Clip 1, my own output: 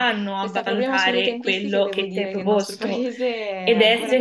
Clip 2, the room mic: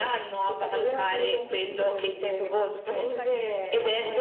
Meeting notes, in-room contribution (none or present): present